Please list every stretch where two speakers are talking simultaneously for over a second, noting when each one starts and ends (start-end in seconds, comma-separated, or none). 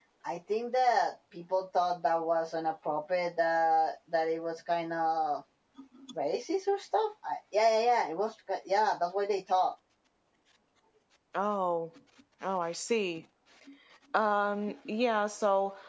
none